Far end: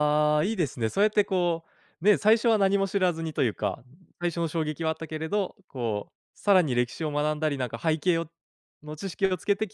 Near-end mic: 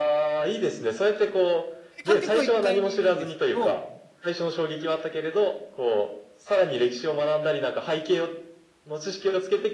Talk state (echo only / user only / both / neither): both